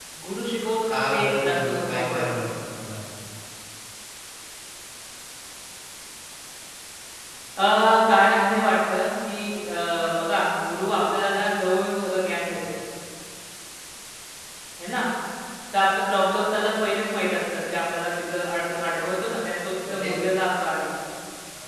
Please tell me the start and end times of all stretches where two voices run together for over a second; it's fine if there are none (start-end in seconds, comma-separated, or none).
0.9-2.4